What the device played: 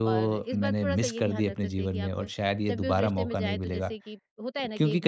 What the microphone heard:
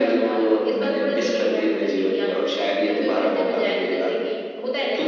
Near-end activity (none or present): none